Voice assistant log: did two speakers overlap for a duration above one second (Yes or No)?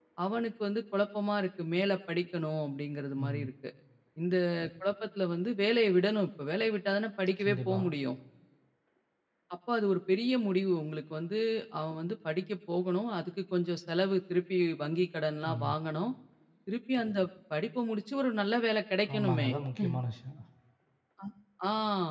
No